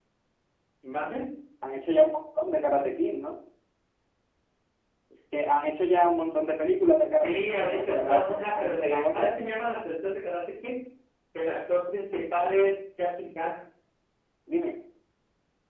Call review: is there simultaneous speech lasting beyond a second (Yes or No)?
Yes